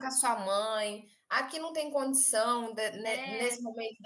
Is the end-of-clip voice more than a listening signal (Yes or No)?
No